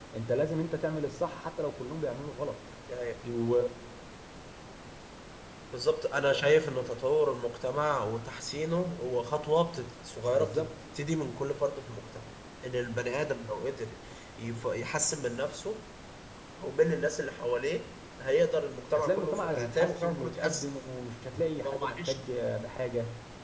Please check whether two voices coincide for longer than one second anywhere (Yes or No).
Yes